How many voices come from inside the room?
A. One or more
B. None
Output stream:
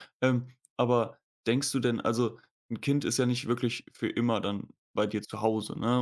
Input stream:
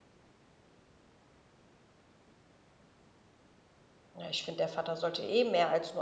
A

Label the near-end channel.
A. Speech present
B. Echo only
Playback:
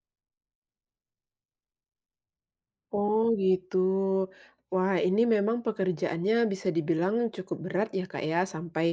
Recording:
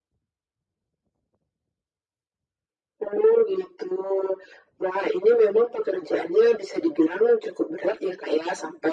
B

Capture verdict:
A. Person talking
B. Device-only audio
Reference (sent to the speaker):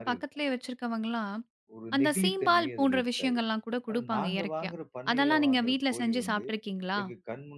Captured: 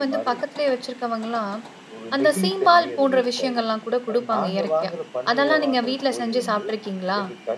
B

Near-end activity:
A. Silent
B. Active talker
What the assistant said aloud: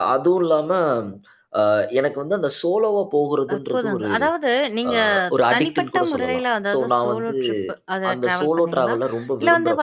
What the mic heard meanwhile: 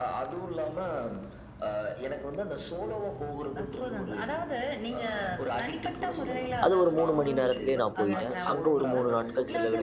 B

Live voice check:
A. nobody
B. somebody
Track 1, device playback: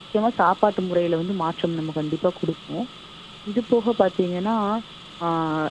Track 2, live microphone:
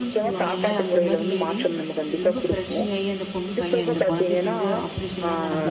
B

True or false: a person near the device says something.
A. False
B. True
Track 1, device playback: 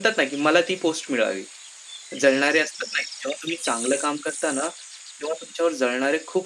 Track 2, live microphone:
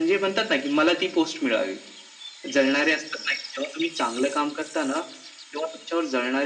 A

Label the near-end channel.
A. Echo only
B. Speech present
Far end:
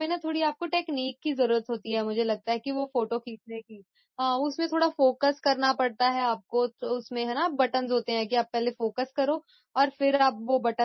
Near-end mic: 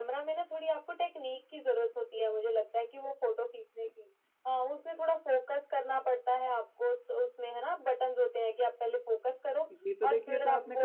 B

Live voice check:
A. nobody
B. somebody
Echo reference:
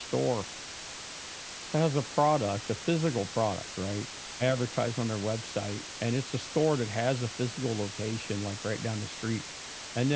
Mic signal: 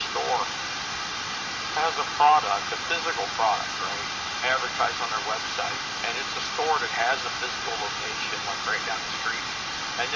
A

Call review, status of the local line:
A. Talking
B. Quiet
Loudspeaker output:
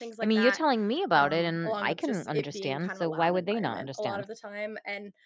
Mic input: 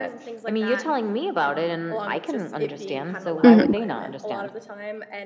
A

